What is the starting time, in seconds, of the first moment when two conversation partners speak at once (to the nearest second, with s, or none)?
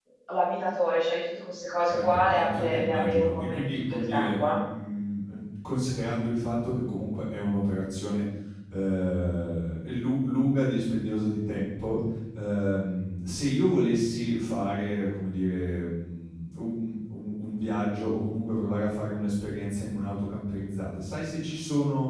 2 s